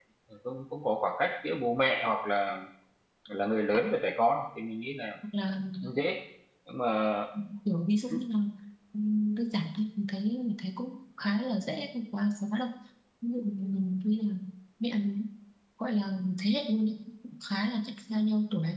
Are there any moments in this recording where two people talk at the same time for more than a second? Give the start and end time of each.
none

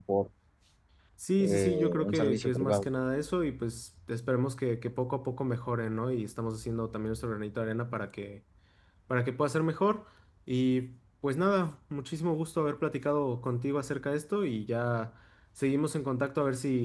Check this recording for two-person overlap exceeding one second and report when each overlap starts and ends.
1.4-2.9

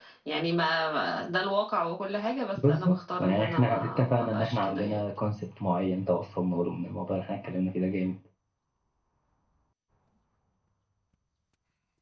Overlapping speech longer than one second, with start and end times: 2.7-5.0

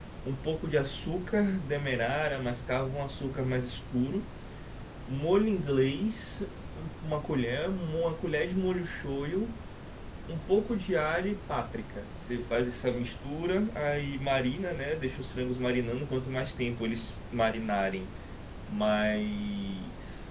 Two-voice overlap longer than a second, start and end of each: none

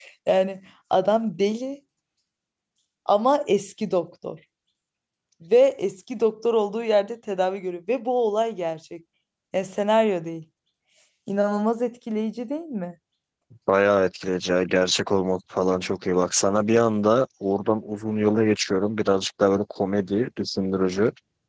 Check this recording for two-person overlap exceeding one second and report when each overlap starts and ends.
none

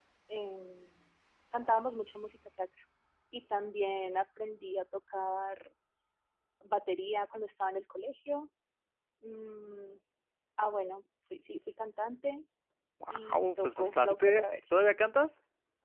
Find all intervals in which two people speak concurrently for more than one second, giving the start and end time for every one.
13.1-14.7

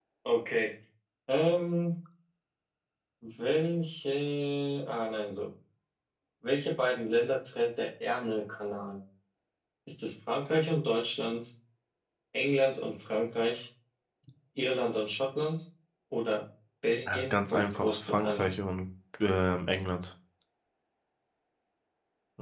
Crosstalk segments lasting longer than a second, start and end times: 17.1-18.5

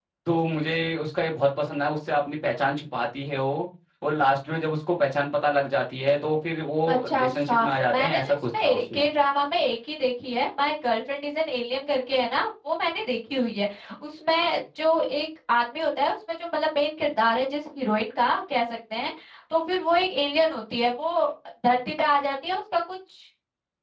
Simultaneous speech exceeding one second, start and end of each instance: 6.9-9.1

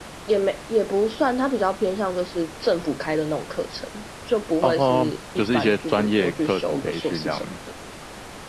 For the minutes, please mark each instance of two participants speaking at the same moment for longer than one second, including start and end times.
4.6-7.5

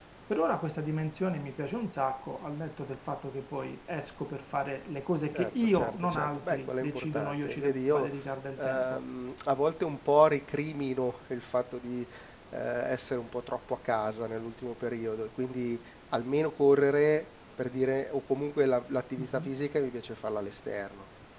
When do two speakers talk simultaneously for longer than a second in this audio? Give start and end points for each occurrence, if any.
5.3-8.1

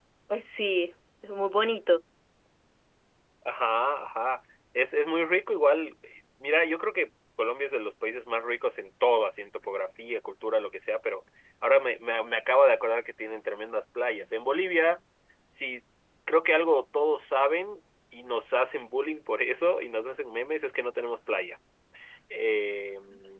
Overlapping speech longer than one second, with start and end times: none

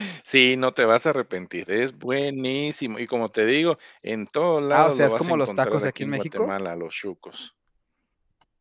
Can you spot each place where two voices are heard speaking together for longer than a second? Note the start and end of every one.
4.7-6.5

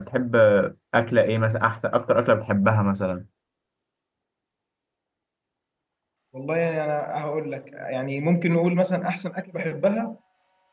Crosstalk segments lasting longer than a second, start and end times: none

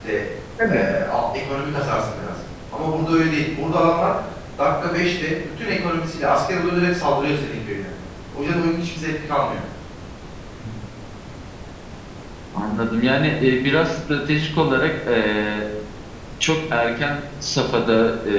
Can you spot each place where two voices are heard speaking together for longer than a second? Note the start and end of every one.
none

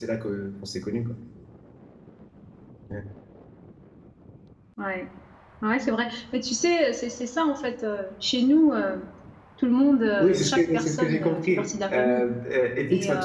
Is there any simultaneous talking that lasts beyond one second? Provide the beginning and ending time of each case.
10.2-12.3

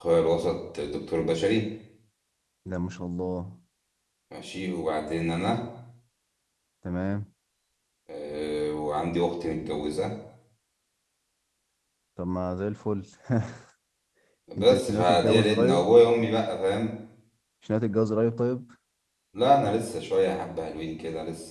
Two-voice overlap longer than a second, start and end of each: 14.6-15.9

